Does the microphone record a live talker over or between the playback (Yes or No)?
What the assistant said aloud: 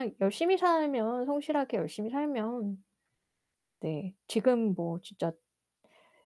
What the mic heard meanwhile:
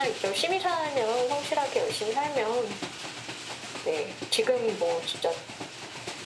No